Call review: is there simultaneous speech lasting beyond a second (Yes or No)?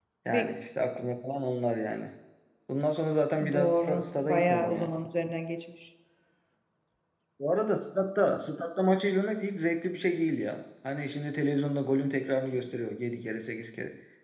Yes